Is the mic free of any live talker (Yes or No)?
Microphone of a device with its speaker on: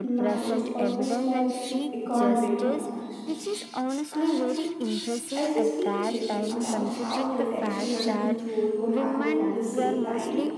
No